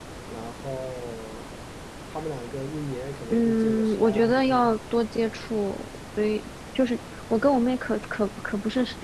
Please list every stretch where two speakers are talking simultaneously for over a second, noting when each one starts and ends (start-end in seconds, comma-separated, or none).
3.3-4.8